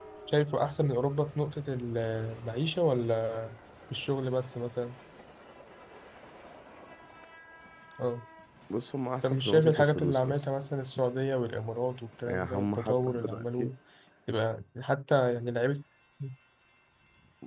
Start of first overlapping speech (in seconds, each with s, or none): 9.2 s